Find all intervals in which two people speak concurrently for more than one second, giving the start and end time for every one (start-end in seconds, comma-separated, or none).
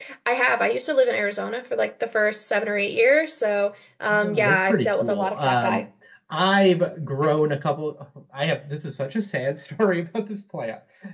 4.1-5.8